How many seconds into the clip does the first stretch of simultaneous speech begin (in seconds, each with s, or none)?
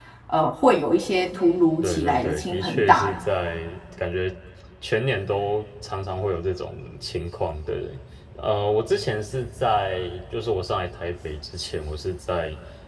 1.8 s